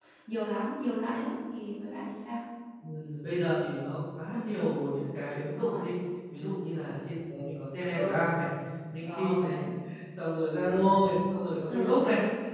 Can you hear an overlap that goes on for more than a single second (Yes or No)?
No